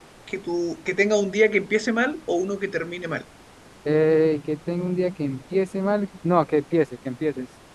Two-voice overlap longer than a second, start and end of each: none

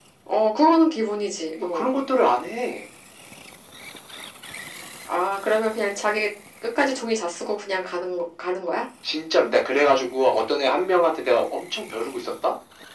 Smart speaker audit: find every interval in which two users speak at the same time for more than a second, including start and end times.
none

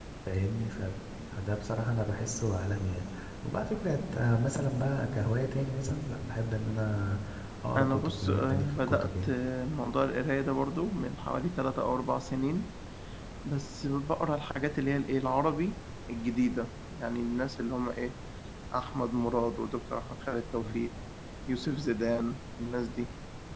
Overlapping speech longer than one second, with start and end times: 7.8-9.2

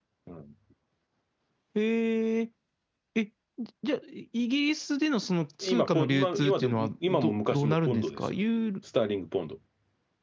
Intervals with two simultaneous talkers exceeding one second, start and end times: 5.6-8.3

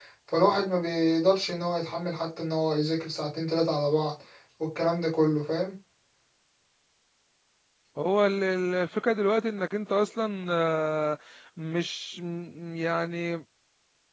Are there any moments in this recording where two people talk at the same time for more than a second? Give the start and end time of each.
none

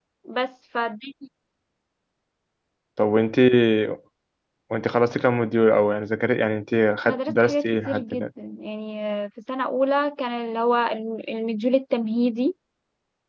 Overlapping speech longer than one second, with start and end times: 7.0-8.3

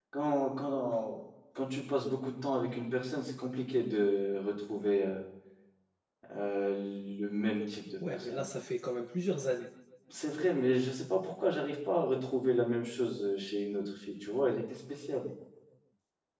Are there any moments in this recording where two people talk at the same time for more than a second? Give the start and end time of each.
none

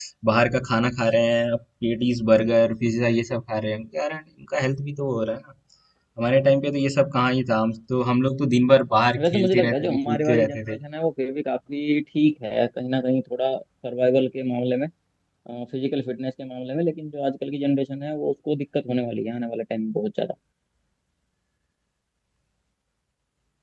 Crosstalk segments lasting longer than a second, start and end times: 9.2-10.8

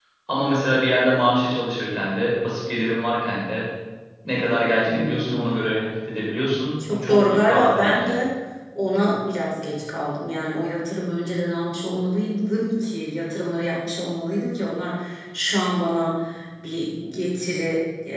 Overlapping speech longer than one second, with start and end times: 6.8-8.1

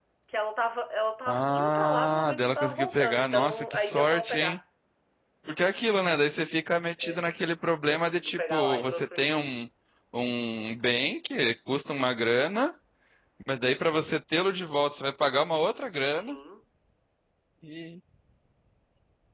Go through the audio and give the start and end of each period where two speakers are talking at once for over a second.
1.3-4.6, 7.9-9.3

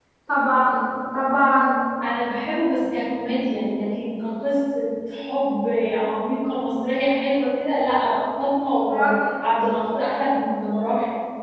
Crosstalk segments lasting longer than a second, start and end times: none

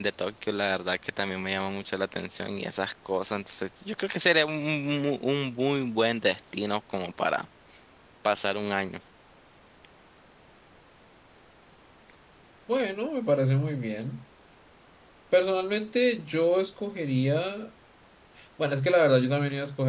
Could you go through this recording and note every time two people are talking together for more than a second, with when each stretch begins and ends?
none

